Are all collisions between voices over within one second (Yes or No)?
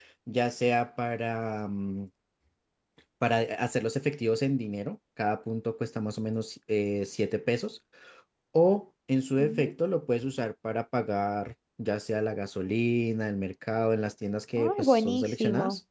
No